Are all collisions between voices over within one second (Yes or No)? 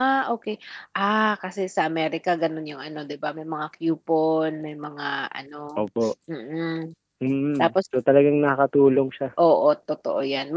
Yes